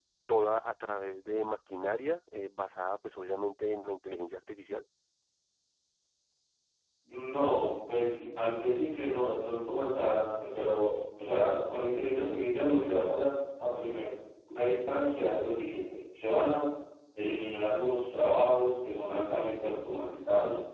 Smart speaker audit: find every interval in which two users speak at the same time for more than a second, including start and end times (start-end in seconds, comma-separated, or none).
none